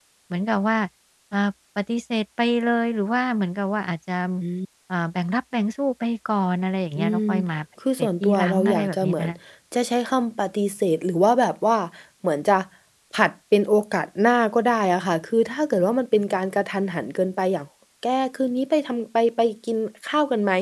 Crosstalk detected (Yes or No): Yes